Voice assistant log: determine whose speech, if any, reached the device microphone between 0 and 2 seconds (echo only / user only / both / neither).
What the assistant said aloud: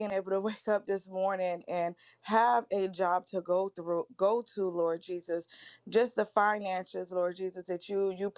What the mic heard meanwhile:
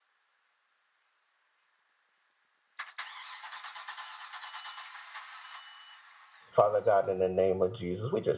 neither